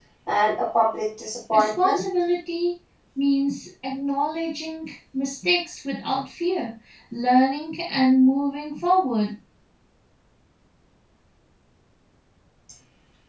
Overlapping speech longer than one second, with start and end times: none

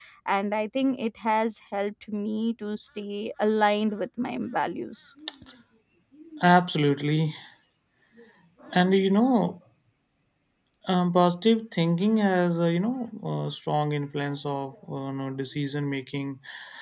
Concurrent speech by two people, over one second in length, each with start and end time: none

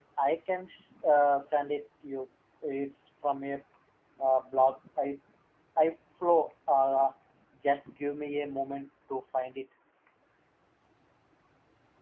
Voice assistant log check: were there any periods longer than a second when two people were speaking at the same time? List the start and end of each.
none

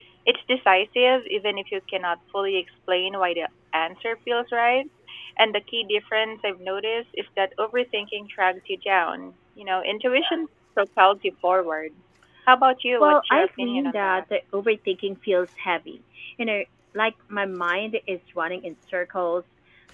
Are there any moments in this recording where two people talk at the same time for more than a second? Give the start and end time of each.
13.0-14.2

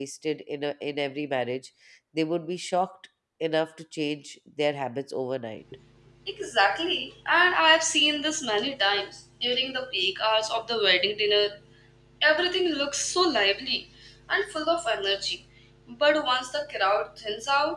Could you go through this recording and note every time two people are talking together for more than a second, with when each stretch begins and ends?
none

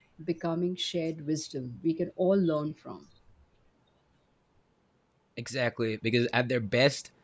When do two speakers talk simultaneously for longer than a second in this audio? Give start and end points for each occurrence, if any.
none

